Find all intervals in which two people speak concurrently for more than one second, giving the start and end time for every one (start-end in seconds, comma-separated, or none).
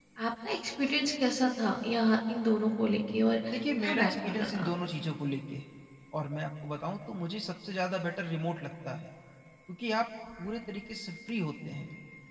3.5-4.7